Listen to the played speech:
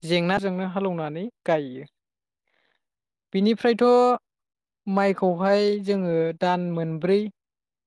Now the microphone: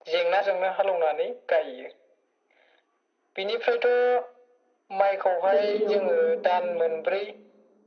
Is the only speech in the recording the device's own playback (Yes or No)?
No